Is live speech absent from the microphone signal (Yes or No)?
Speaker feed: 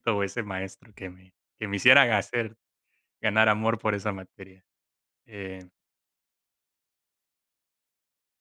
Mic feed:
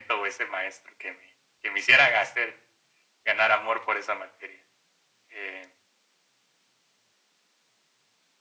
Yes